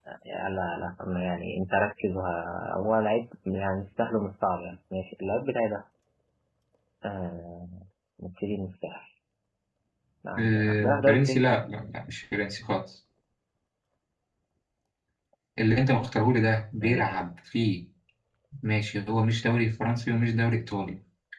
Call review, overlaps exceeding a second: present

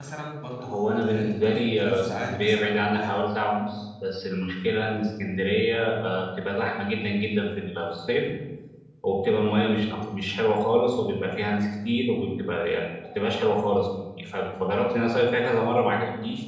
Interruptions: present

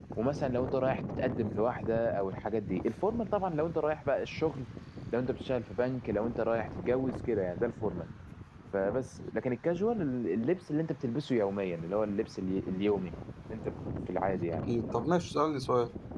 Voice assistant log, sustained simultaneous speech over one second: none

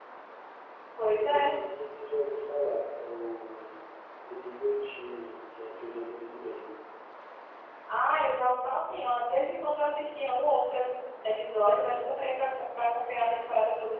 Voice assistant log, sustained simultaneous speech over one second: none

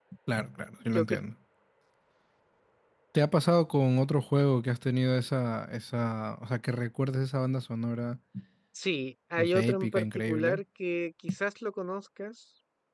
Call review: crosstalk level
present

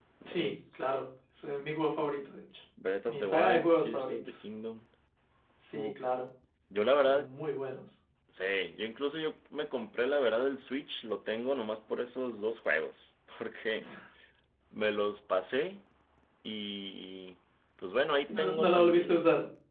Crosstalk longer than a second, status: present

